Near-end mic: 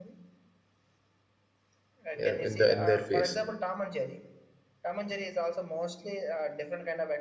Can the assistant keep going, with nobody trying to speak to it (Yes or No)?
No